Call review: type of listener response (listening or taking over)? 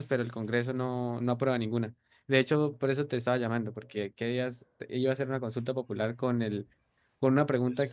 listening